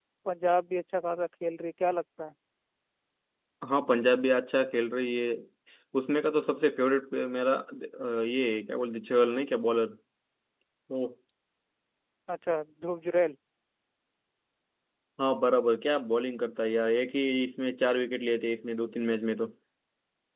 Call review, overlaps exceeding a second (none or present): none